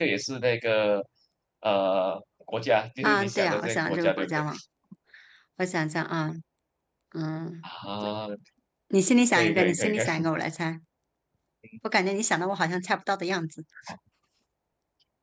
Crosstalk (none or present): present